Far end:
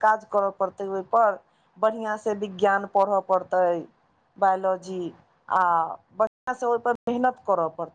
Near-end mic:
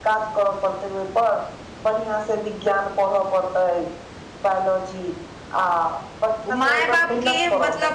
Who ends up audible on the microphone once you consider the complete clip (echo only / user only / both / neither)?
both